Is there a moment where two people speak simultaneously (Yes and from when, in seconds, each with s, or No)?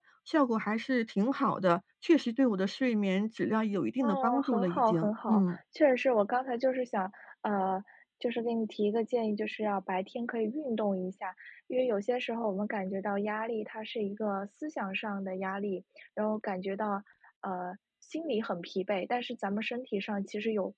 Yes, from 4.0 s